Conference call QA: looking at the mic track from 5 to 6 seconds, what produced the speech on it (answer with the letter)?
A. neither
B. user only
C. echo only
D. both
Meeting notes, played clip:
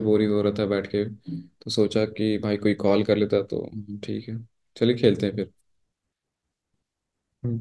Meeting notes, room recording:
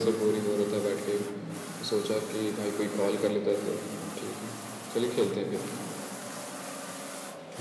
C